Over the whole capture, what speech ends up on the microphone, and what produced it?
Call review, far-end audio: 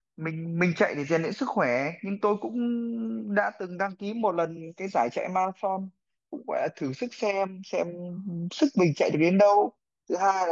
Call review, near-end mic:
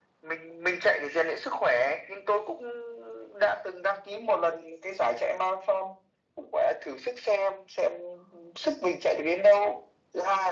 echo only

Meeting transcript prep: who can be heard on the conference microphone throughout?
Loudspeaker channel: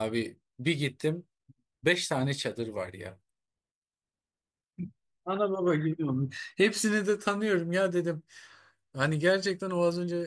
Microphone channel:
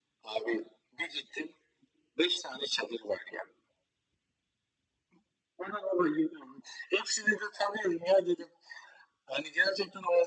echo only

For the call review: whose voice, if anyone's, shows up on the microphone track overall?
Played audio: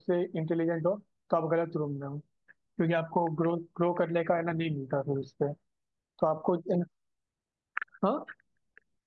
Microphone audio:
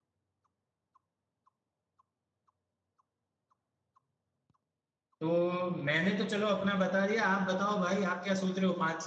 user only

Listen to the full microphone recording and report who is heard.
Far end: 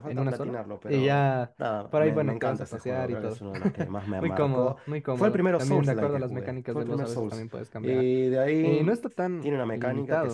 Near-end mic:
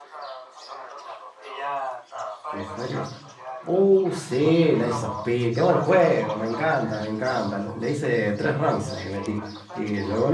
both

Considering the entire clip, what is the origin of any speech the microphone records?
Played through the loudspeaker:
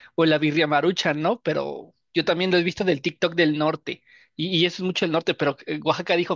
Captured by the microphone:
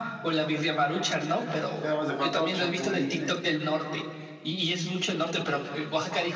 both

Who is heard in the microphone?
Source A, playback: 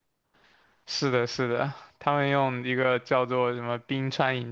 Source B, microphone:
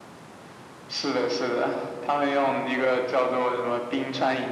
echo only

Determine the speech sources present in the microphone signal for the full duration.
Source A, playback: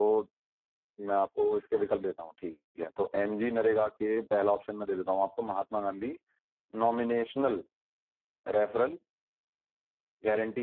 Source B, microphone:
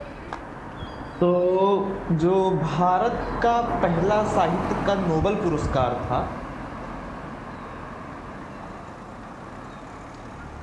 user only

